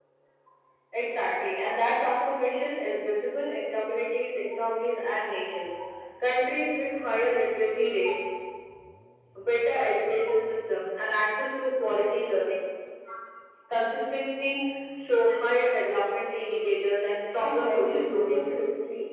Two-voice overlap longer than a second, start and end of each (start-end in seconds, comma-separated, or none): 17.4-18.6